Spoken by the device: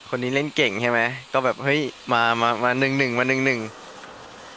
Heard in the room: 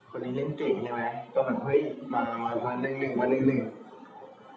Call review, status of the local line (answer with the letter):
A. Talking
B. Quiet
B